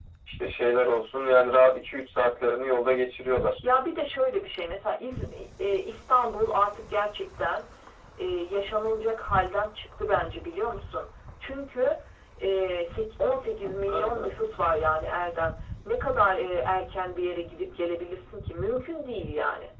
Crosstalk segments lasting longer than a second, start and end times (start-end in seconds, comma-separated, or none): none